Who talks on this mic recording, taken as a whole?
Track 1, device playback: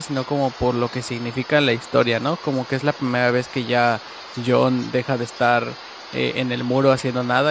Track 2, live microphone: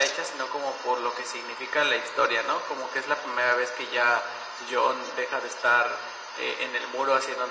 echo only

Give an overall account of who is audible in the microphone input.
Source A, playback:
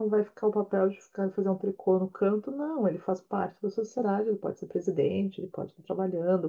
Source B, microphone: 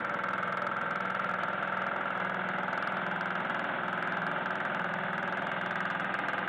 neither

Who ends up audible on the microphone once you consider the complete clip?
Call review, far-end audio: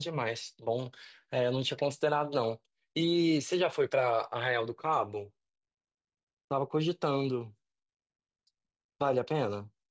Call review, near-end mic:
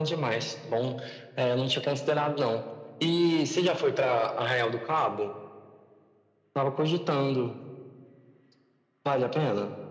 echo only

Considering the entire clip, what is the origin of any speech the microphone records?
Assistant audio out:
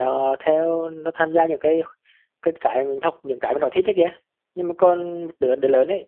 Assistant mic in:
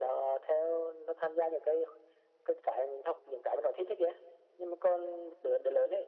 echo only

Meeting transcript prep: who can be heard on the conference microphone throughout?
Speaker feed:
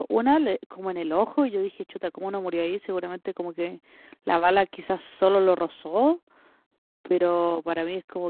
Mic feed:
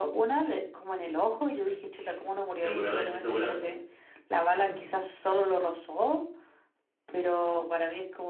both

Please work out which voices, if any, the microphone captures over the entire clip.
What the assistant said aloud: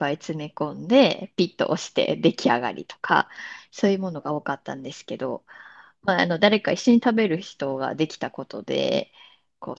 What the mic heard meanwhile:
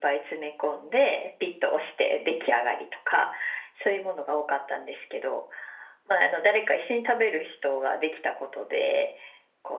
echo only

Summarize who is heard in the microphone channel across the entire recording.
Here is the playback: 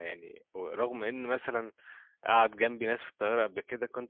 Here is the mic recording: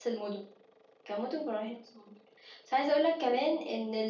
user only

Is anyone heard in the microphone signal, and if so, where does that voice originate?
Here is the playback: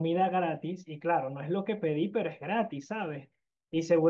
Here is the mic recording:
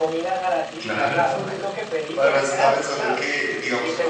both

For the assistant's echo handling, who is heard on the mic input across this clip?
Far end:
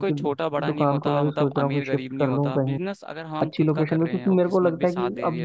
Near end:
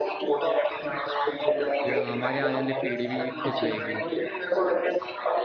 both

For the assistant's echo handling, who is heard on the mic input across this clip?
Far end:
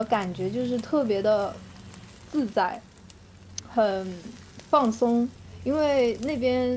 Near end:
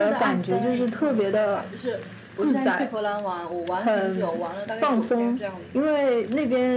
both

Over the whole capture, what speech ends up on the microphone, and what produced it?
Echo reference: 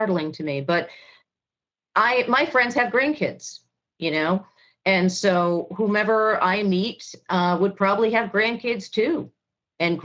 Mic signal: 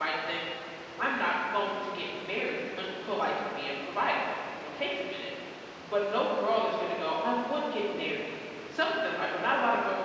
user only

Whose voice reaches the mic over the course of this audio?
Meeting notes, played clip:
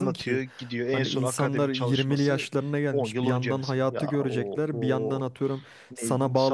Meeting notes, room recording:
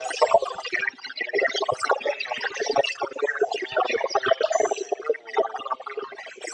echo only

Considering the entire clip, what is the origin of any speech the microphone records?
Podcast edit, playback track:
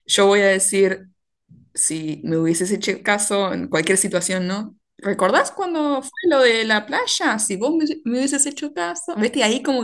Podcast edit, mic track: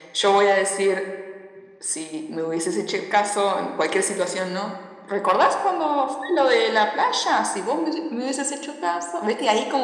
echo only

